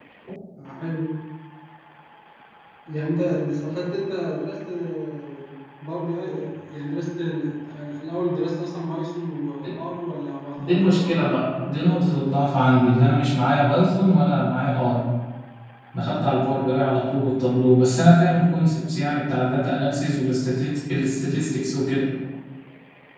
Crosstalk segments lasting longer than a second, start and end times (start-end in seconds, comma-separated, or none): 10.6-12.6